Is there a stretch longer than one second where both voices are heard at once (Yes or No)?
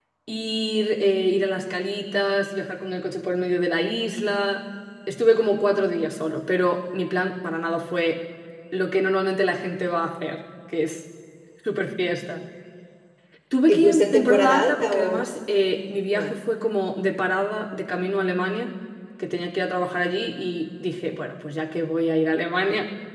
Yes